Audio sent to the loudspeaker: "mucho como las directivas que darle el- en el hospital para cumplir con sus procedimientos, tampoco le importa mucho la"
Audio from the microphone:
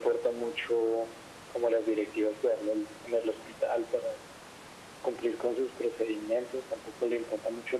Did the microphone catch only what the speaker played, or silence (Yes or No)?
Yes